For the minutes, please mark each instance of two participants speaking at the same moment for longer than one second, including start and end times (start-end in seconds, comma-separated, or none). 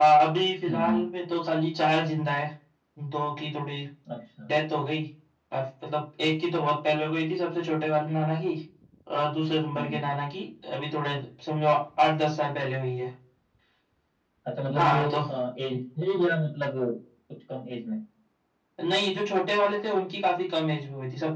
none